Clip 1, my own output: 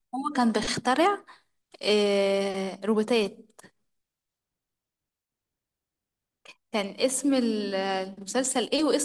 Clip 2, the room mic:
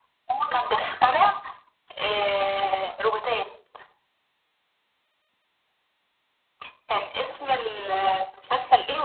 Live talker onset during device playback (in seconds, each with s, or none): none